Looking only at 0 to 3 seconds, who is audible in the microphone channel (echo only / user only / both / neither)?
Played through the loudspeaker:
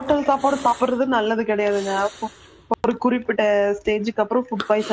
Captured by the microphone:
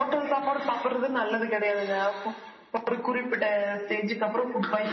echo only